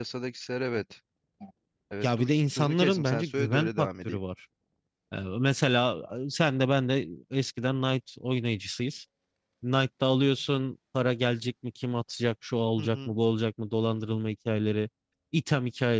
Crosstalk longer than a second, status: present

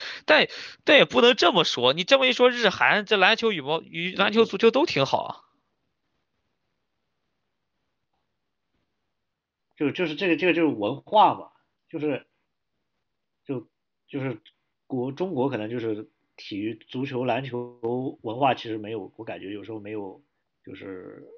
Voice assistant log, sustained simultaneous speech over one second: none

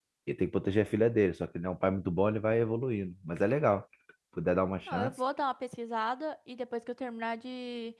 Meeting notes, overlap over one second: none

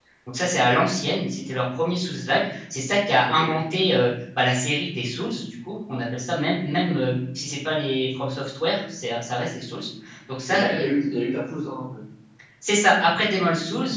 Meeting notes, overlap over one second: none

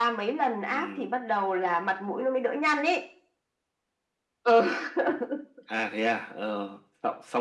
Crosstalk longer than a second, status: none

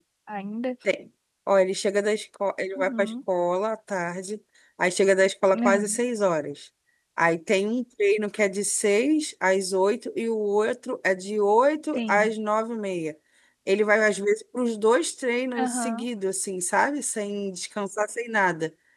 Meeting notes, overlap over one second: none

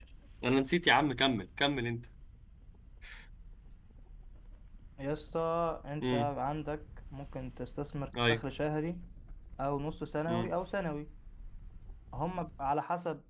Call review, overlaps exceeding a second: none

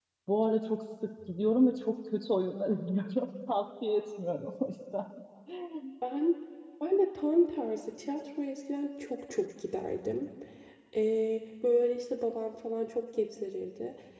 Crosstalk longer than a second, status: none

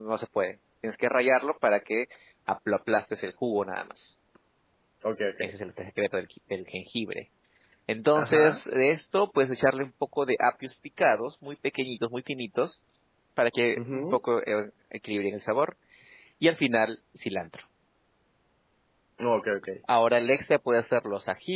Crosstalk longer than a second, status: none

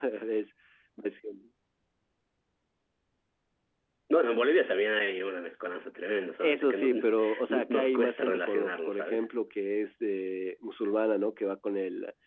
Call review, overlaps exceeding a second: present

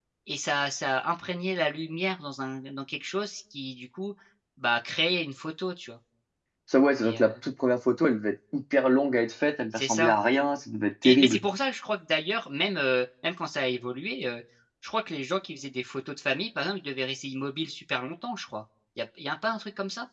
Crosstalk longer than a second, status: none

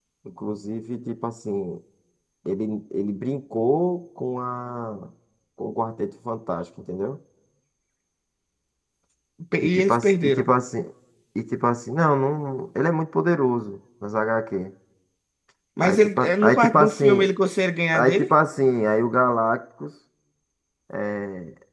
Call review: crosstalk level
present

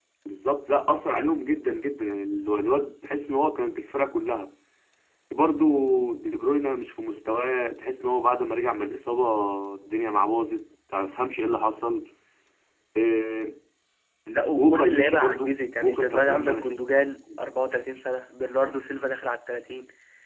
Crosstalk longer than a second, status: present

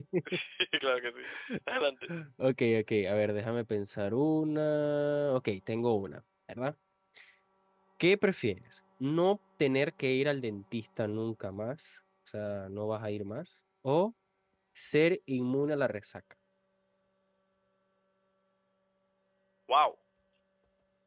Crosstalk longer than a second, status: none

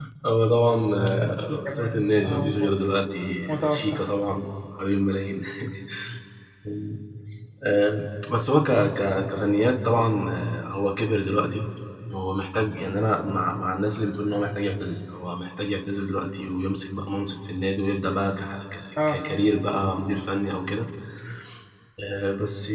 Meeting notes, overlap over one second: present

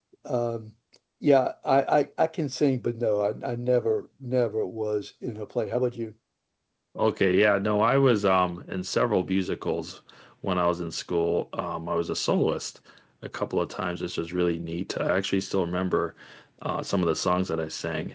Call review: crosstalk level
none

